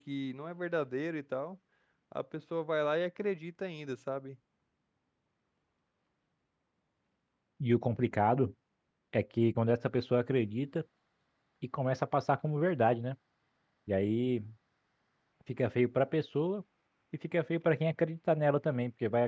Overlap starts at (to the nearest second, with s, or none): none